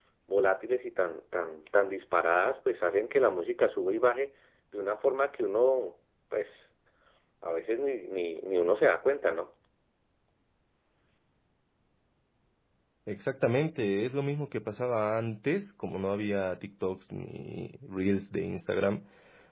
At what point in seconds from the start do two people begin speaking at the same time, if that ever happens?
none

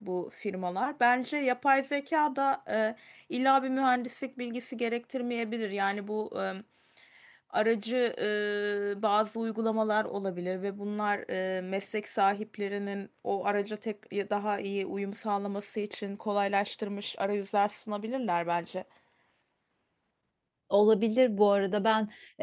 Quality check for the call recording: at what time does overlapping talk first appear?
none

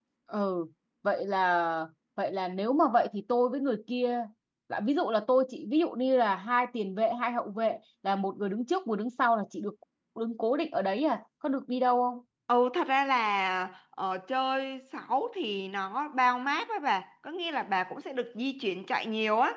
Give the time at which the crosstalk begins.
none

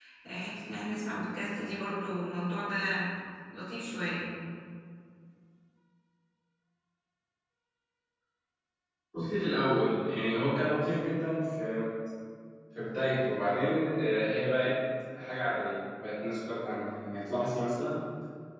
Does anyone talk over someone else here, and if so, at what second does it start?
none

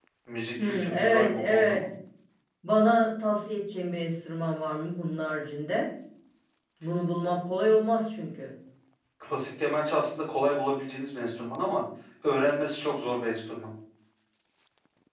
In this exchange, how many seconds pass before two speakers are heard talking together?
1 s

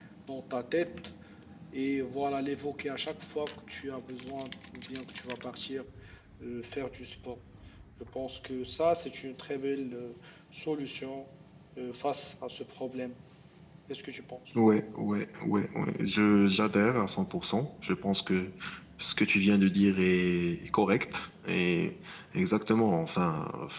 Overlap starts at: none

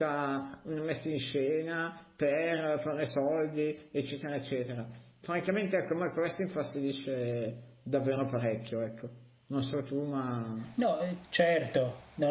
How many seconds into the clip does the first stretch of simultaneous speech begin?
none

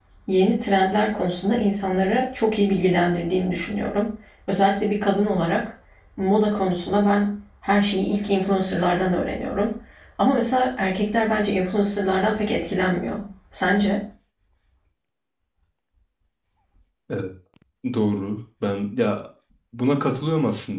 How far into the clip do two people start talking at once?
none

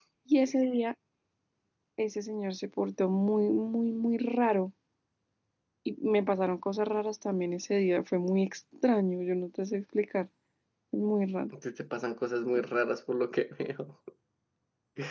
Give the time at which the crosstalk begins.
none

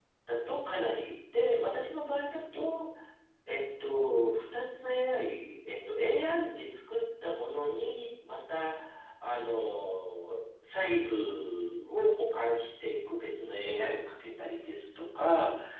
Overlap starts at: none

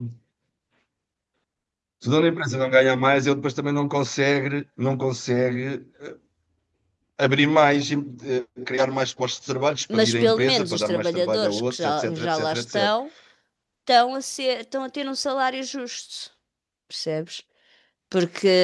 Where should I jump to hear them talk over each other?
10 s

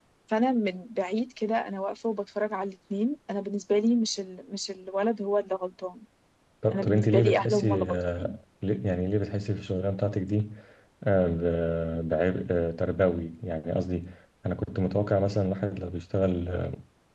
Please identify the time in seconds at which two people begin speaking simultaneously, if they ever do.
7 s

